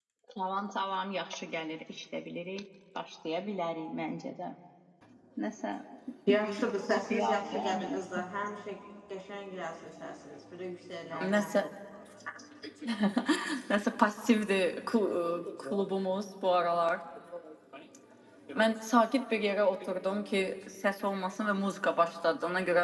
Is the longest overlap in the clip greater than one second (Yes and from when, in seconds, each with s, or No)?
Yes, from 7.0 s